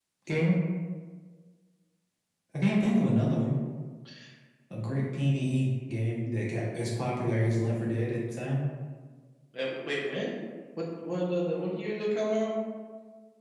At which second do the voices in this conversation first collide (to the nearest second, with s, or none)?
none